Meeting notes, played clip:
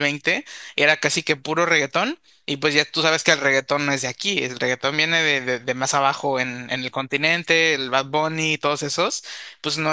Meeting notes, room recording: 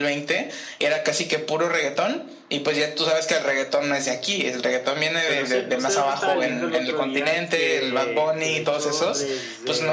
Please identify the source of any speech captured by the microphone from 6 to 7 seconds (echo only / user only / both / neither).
both